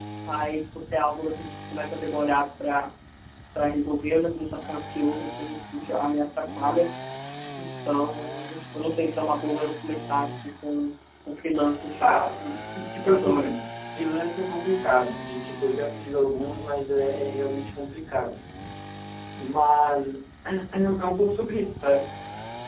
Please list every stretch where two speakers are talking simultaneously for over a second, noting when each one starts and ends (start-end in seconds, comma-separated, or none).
none